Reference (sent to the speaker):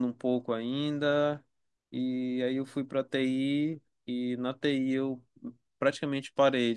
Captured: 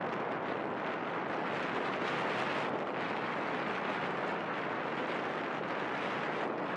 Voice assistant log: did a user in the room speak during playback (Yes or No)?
No